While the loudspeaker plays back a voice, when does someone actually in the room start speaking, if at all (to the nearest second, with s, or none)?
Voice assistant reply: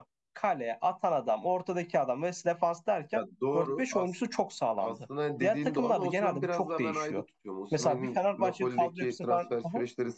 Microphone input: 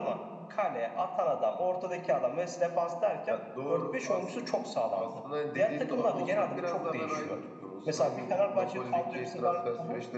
none